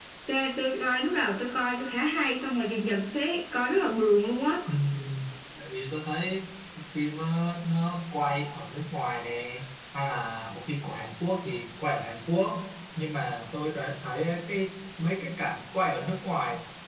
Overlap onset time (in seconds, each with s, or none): none